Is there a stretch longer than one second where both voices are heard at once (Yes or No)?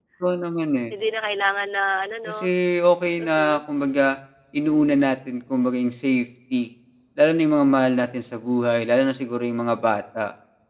No